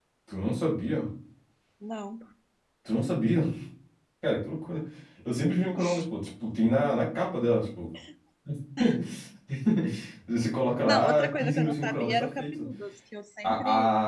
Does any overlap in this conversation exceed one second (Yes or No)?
Yes